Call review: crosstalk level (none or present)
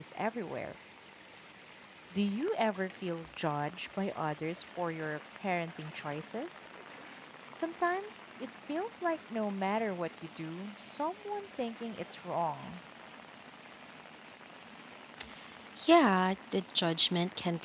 none